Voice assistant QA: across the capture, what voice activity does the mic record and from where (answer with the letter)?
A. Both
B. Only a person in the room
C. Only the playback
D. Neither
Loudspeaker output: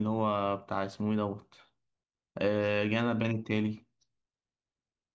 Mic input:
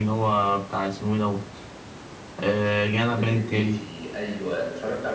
A